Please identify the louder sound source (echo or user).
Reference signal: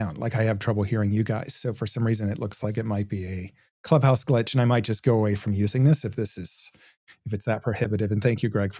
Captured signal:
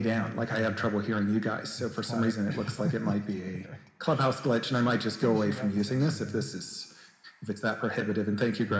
echo